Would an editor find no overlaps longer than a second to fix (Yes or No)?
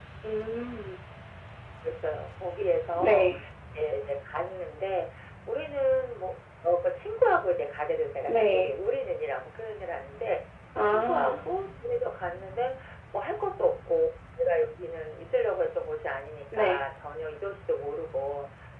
Yes